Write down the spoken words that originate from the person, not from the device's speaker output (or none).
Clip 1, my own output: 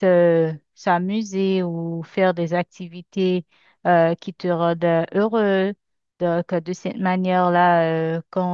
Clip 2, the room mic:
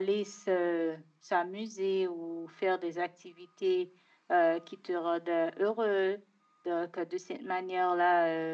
none